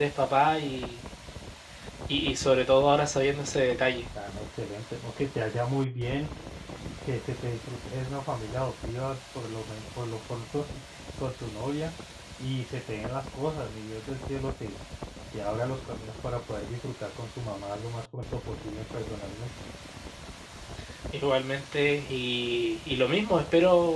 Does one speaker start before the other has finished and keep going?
No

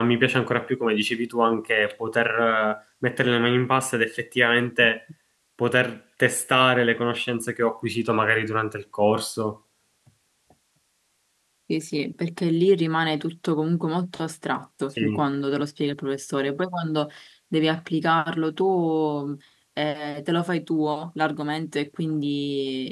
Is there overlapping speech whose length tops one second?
No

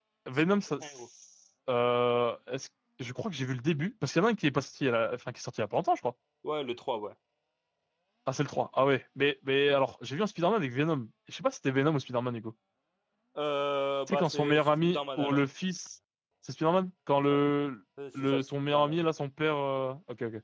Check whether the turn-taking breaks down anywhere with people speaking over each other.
Yes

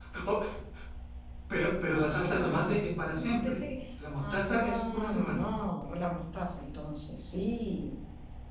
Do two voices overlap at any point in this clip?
Yes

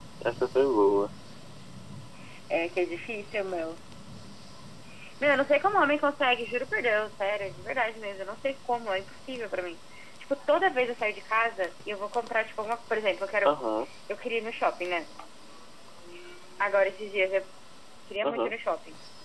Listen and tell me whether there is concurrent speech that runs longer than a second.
No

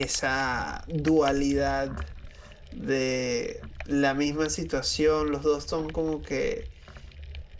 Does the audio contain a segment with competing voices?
No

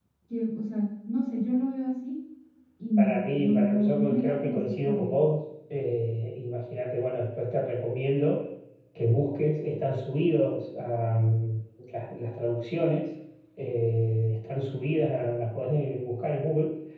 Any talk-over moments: Yes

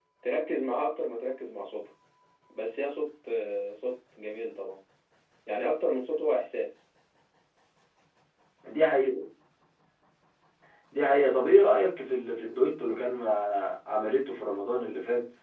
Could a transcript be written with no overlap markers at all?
Yes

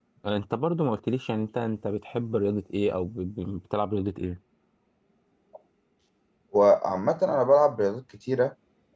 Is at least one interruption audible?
No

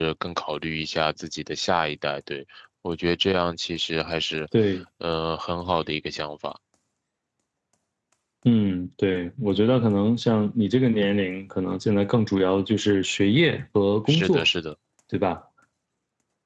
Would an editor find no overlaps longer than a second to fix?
Yes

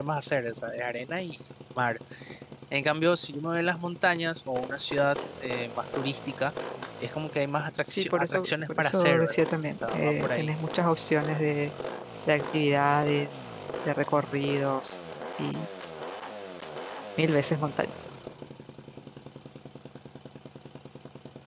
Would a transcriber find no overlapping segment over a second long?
No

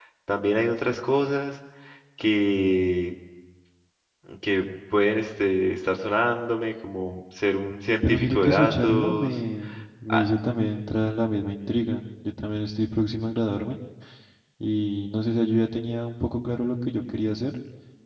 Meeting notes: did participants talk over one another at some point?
Yes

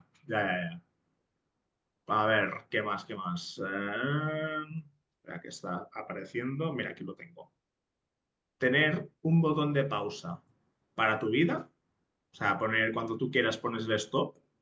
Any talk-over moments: No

